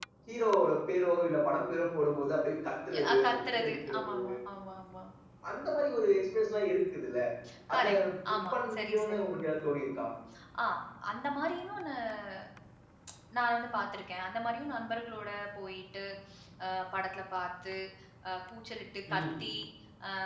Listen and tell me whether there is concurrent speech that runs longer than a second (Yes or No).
Yes